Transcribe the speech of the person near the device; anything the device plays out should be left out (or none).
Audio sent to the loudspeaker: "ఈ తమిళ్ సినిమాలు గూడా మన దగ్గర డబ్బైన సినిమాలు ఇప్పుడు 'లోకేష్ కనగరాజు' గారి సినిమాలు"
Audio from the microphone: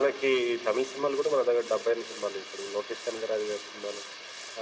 none